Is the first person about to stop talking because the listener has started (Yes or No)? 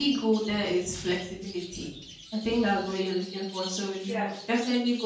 No